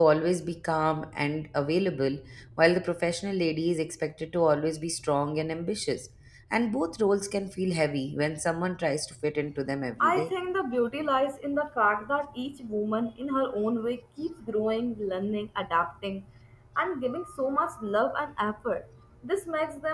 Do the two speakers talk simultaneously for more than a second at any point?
No

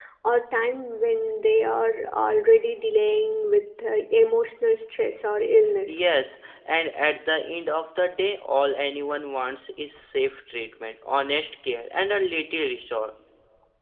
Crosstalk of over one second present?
No

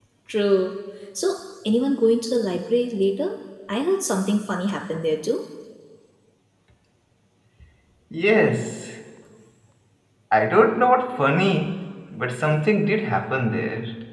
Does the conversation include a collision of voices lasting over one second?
No

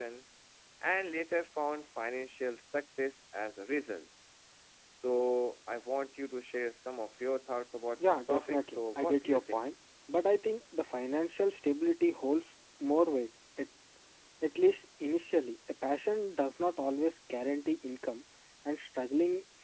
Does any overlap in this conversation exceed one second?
Yes, from 8.0 s

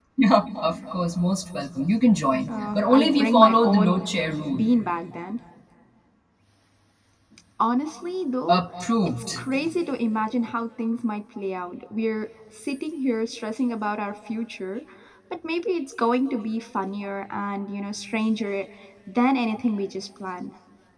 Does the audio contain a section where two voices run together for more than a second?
Yes, from 2.5 s

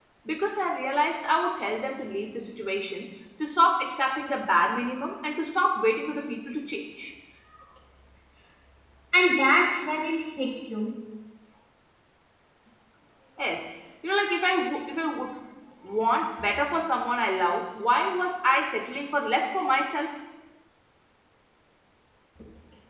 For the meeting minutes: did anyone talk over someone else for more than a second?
No

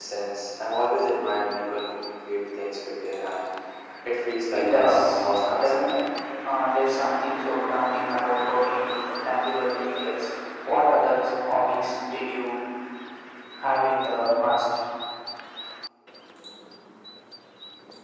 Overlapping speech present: Yes, from 4.5 s

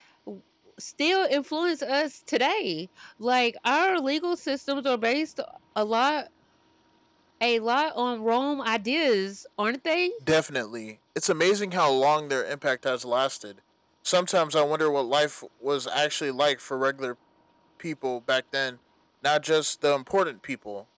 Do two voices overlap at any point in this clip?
No

